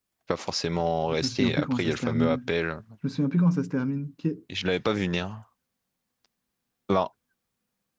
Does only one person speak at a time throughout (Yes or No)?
No